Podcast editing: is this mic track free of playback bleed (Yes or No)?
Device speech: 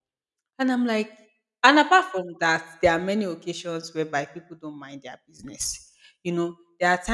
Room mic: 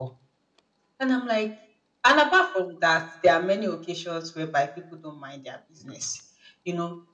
No